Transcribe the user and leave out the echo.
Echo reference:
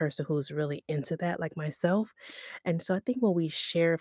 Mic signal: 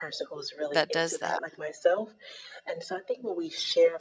that does that?

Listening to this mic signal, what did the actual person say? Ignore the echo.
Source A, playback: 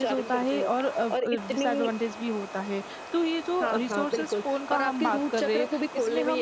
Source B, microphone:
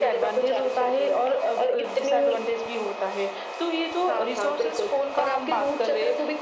none

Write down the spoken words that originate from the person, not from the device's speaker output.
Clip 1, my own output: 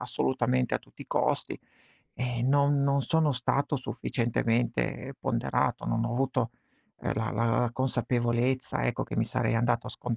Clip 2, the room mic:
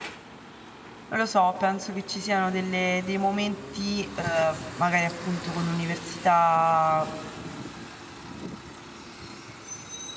non lo so, penso che ci siano delle dei momenti, ehm, magari appunto con l'università,

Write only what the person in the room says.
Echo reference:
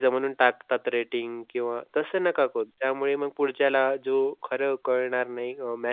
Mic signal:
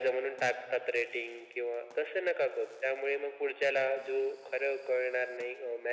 none

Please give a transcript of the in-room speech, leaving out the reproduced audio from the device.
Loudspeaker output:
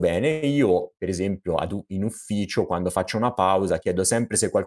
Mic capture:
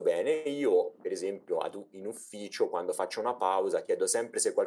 none

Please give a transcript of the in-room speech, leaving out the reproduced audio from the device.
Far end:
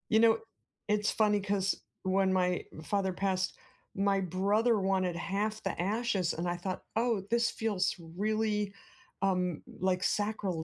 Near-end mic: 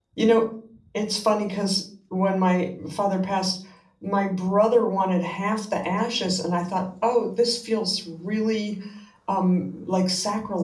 none

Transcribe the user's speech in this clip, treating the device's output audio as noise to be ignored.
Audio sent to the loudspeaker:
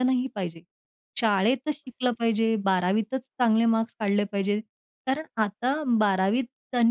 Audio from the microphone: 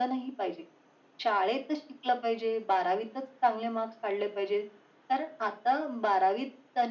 none

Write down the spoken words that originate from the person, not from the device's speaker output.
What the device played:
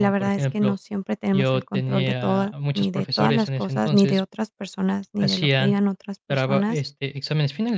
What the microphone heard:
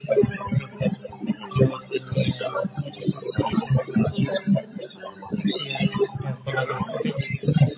en forma de crítica.

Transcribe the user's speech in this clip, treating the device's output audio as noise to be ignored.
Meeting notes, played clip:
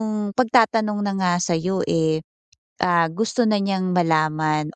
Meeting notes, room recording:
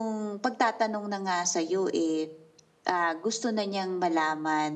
none

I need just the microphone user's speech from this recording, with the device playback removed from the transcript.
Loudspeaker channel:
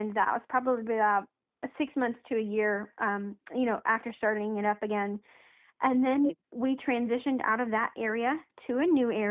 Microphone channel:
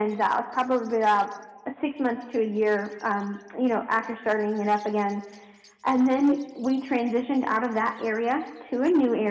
none

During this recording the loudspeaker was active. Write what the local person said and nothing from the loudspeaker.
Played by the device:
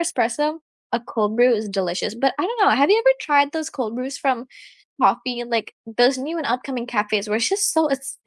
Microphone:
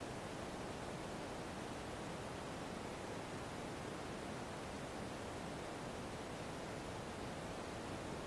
none

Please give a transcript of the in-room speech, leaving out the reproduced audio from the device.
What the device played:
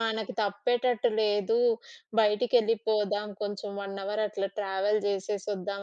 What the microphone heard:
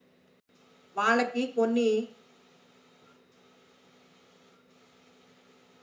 వాళ్ళకి కొన్ని

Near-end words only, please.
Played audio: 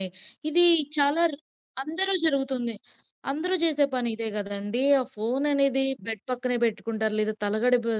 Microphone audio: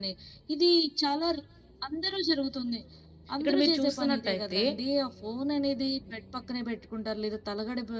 ఇక్కడ మీరు చూస్తున్నట్టయితే

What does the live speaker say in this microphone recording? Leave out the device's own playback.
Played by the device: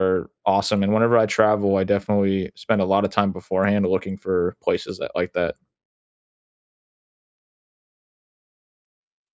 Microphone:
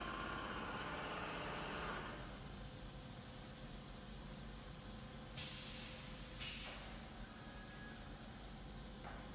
none

